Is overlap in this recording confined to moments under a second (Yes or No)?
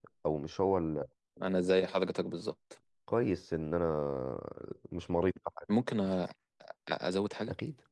Yes